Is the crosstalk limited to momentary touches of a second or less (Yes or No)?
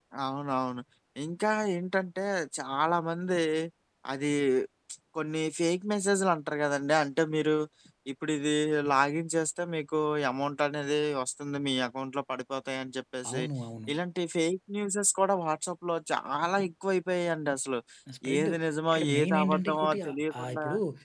No